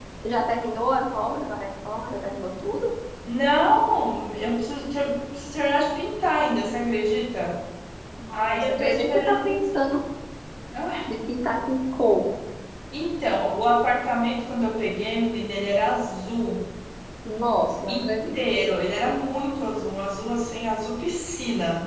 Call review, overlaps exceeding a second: present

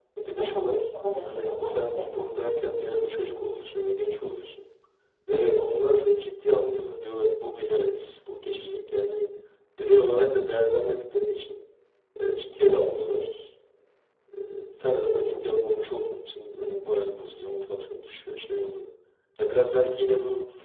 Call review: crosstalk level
present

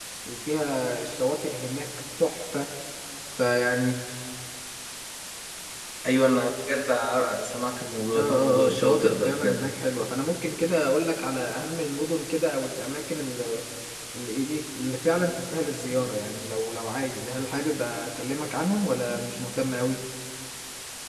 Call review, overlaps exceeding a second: present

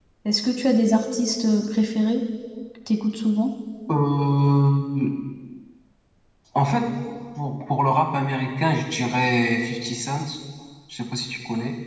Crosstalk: none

